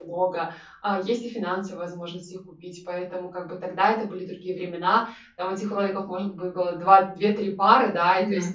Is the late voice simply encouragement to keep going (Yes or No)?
Yes